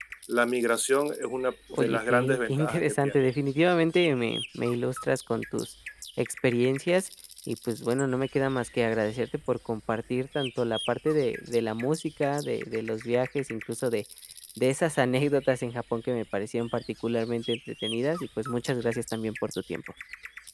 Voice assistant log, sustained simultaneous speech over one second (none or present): present